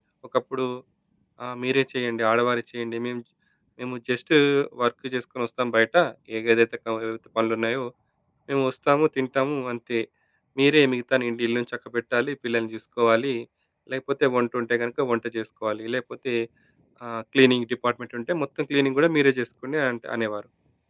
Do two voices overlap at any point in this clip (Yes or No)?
No